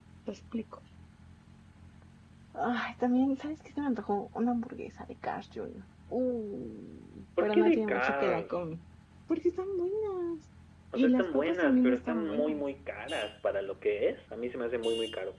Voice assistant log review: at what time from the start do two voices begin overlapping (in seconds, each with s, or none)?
7.4 s